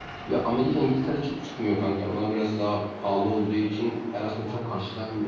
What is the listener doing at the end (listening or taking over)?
listening